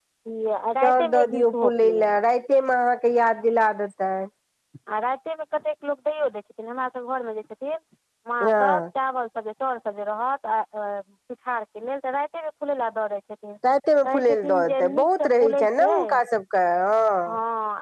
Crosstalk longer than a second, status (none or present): present